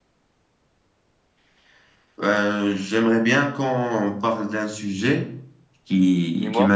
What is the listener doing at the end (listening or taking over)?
listening